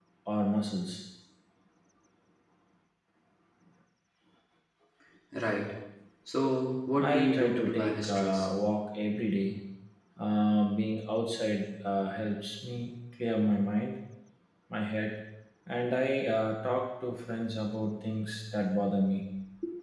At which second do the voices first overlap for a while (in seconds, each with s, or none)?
7.0 s